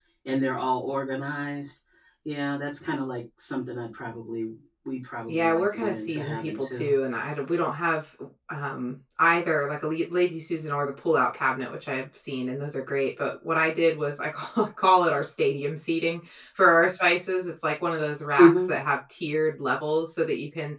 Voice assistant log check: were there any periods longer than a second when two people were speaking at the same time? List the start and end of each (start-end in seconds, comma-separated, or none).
5.3-6.9